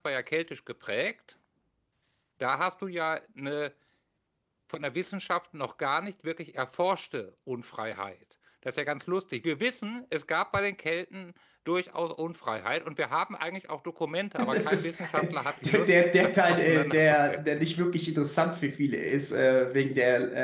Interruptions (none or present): present